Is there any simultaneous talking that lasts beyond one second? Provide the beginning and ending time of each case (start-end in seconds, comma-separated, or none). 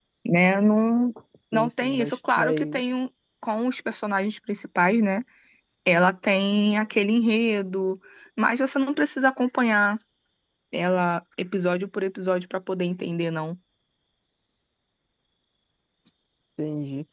1.5-2.8